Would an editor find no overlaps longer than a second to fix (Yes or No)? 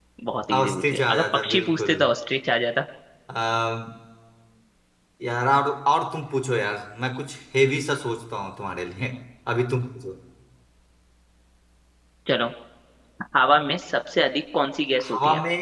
No